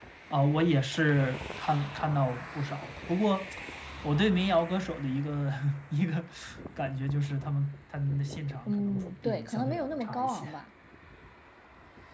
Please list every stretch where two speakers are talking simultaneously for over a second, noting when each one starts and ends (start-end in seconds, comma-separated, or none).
8.7-10.5